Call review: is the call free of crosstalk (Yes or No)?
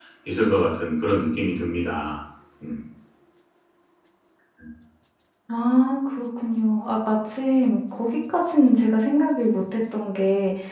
Yes